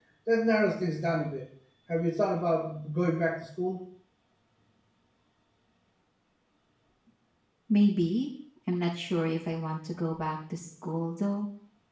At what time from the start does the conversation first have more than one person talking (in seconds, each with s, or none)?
none